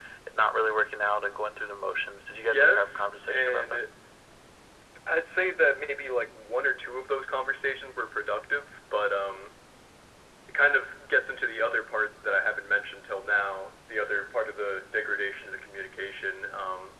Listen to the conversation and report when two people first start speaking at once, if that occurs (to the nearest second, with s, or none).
2 s